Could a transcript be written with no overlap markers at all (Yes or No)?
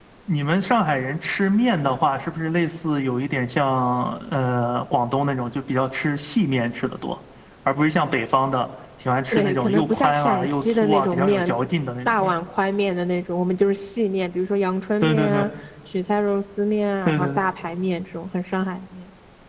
No